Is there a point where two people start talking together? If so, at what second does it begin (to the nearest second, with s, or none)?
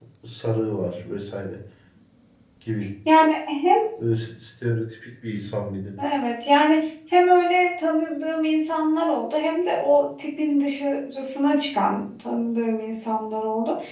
none